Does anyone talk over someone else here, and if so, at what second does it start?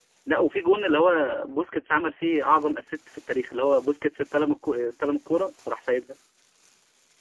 none

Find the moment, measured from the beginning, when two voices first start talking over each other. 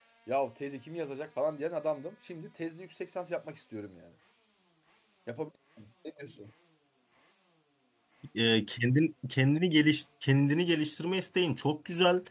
none

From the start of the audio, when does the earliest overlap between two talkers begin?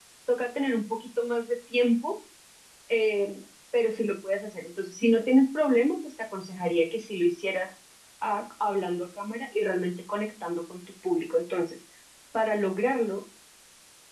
none

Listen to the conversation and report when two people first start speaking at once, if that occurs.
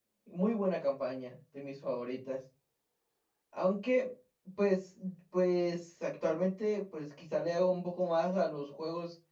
none

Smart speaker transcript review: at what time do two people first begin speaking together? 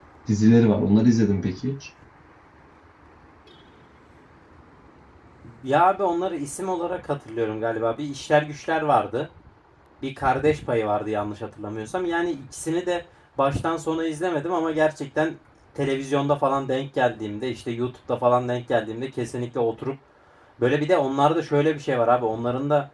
none

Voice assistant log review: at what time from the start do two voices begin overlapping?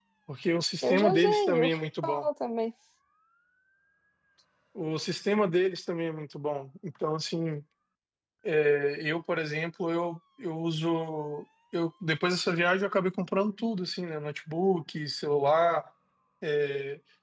0.8 s

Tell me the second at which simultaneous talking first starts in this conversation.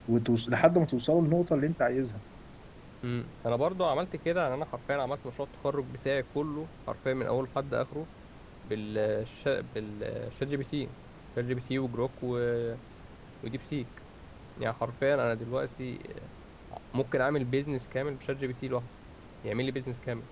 none

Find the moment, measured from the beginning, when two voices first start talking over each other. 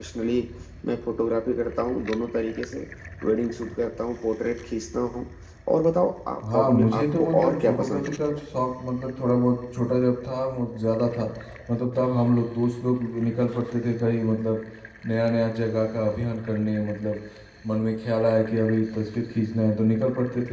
6.5 s

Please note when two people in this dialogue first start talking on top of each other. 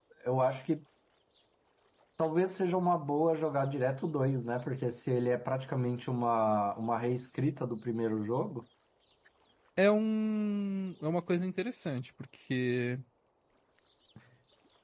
none

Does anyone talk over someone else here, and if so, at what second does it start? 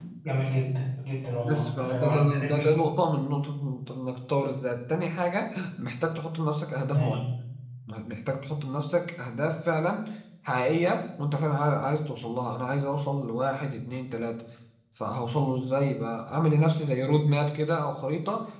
1.4 s

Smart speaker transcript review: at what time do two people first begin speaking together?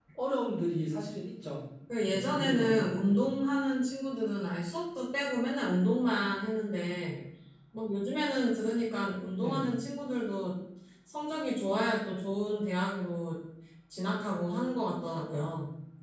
2.1 s

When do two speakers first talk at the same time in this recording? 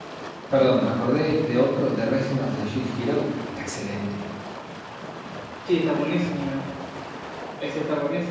none

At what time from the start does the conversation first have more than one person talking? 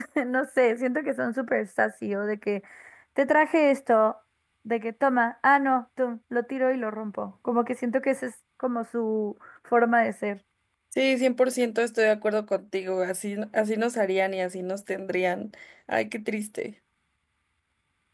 none

